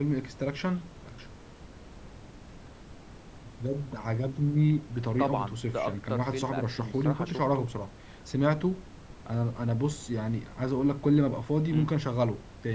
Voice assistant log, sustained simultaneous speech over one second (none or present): present